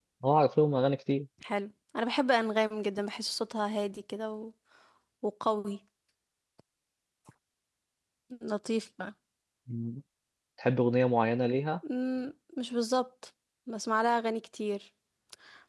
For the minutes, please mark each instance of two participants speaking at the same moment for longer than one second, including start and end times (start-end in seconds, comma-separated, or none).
none